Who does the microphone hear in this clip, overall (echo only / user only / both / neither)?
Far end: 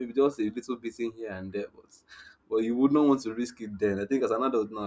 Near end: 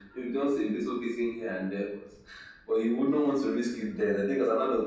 echo only